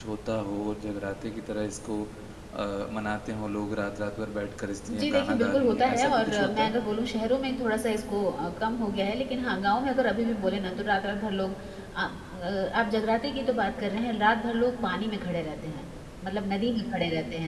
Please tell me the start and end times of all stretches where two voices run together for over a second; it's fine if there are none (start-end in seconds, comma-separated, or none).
5.0-6.7